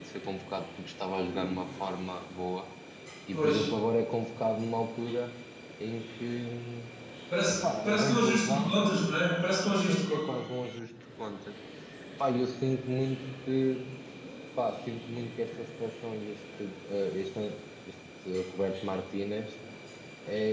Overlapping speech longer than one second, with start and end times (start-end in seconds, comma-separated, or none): 7.5-8.7